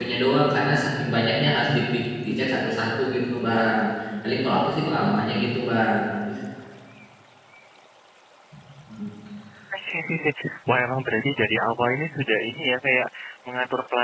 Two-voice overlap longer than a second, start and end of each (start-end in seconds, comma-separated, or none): none